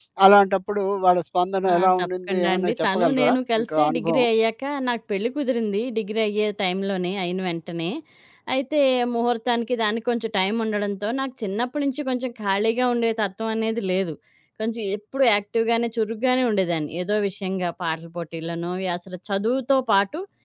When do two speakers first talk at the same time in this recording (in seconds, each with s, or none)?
1.7 s